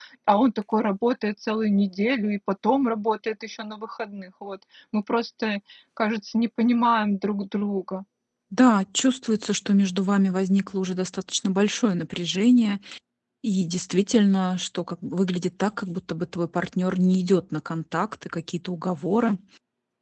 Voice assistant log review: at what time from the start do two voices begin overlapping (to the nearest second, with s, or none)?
none